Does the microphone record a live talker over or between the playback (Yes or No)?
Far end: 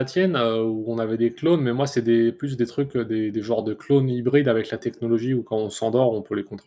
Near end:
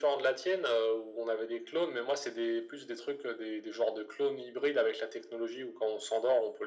No